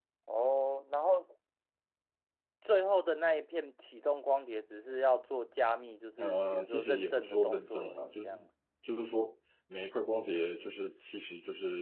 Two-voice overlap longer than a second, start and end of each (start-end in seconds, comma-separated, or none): 6.2-8.4